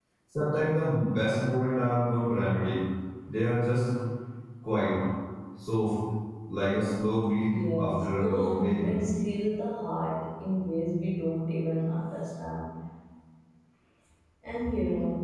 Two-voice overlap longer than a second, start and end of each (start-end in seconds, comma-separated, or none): 7.5-8.9